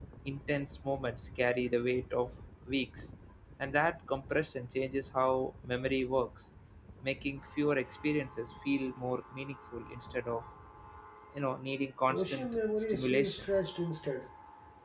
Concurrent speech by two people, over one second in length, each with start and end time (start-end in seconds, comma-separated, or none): 12.1-13.5